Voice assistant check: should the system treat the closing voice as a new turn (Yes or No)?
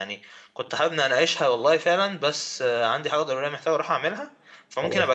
No